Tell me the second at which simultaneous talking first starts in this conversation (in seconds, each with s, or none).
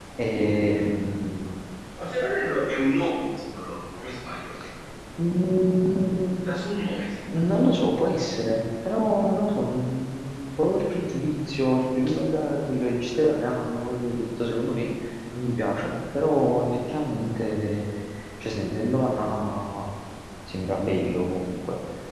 none